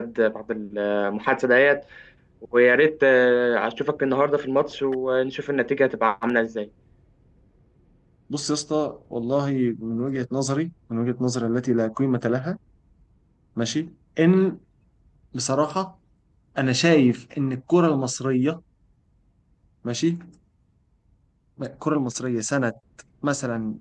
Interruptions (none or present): none